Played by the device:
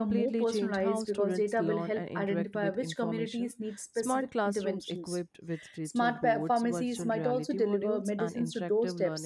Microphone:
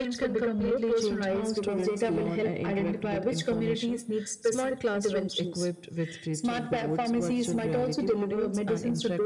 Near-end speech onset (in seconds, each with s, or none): none